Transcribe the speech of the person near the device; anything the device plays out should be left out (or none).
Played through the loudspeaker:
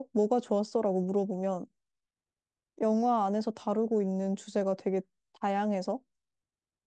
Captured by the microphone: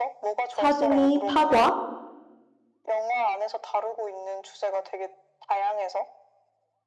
4등이 파과,